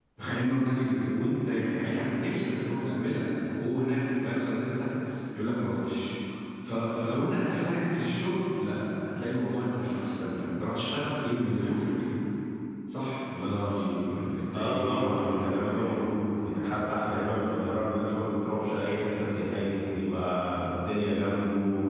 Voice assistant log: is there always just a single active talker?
No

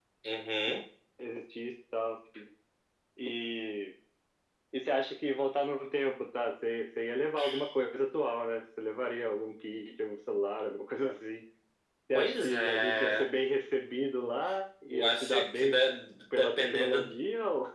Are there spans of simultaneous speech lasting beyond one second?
Yes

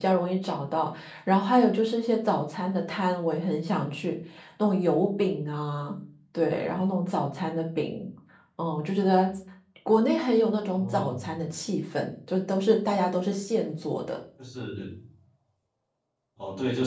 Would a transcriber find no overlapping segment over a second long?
Yes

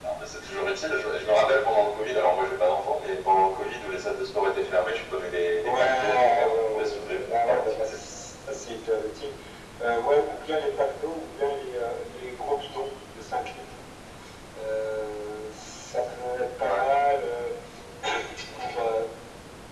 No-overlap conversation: No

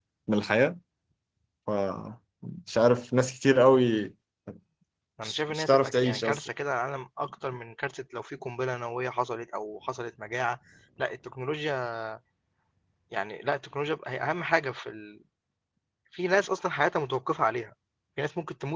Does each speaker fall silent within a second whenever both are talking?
No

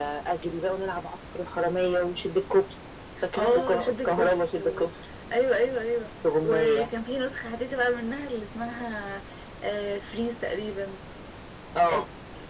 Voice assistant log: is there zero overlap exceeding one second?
No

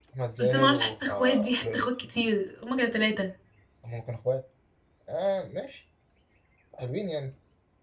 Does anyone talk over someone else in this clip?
Yes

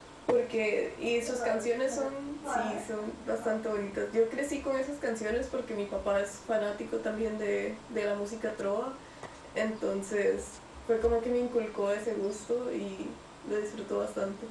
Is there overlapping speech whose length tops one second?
Yes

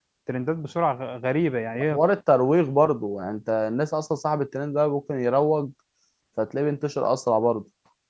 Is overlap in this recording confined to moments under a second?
Yes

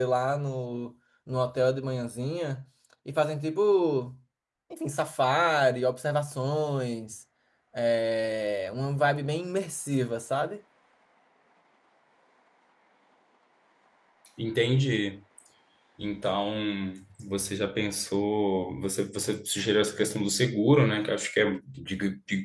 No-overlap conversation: Yes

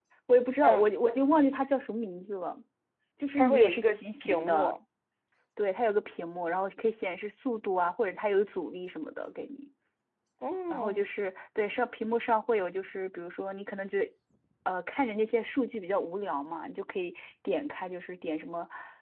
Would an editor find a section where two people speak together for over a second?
Yes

